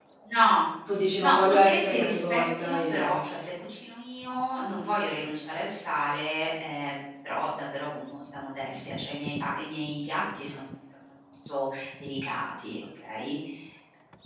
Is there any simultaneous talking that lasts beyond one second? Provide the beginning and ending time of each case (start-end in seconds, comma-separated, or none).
1.2-3.2